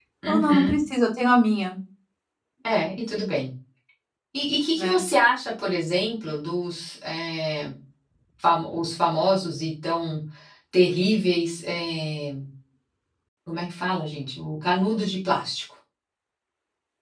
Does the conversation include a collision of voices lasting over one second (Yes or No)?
No